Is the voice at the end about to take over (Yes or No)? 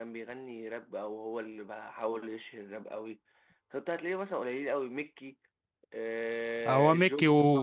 Yes